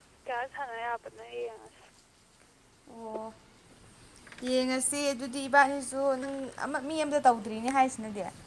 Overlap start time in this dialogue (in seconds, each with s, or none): none